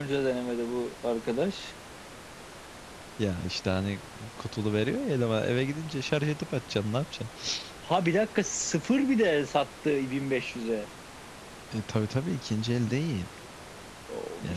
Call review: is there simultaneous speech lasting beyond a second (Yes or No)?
No